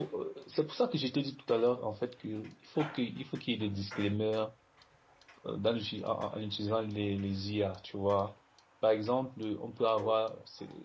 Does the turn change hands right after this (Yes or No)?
No